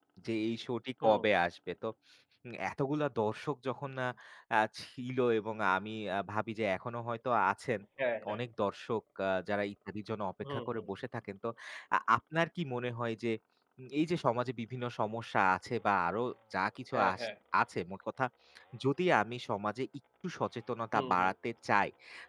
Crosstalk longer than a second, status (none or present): none